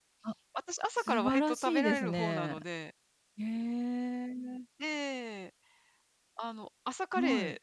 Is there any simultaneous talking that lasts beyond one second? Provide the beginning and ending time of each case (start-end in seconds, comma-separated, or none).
1.0-2.5